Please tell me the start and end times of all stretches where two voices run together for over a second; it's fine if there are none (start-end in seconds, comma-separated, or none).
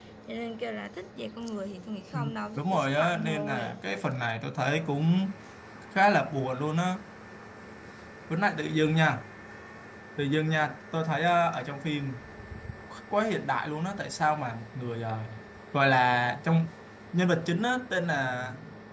2.1-3.8